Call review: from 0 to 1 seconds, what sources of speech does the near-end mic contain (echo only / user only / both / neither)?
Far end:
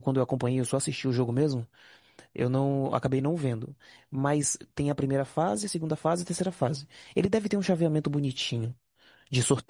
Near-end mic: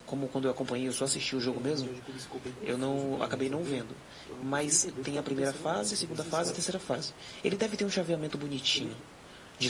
echo only